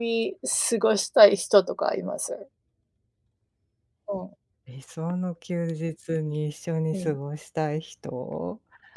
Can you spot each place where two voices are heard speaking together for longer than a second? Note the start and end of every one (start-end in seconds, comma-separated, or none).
none